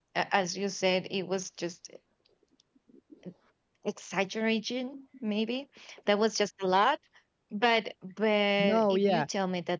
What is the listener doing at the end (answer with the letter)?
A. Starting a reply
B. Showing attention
B